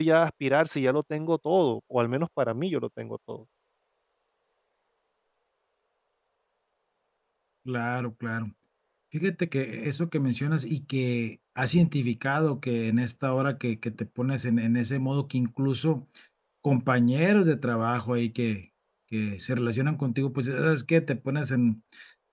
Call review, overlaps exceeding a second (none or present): none